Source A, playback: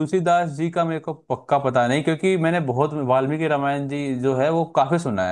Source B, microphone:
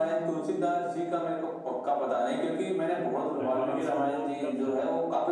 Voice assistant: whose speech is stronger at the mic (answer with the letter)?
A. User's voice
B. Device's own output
B